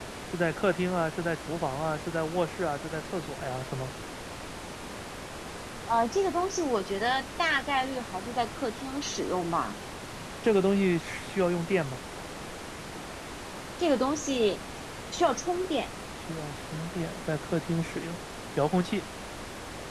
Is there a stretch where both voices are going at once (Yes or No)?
No